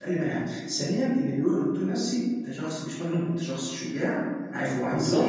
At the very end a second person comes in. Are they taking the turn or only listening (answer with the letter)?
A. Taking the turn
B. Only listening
B